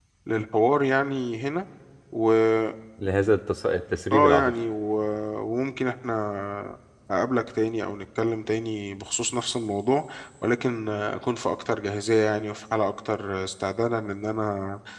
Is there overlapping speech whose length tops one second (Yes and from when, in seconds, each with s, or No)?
No